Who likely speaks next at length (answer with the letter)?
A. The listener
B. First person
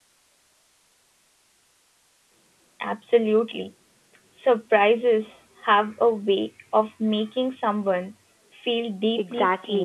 A